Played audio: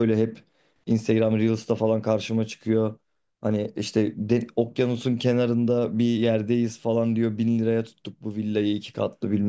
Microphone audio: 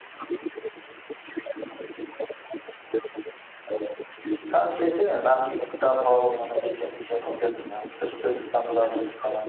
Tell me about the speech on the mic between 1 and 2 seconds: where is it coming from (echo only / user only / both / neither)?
echo only